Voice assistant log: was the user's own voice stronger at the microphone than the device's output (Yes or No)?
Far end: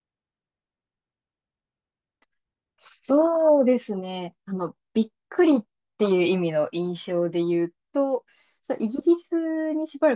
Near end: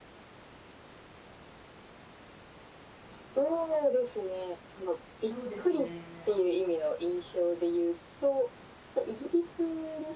No